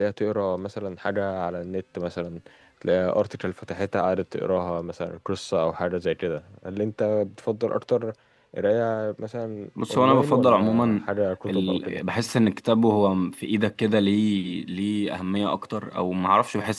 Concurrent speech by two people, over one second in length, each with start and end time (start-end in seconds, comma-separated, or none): 9.8-11.0